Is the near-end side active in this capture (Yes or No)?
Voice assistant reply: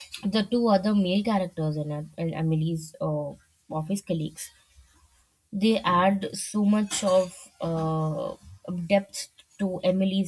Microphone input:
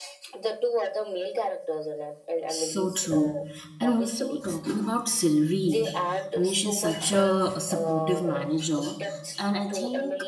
Yes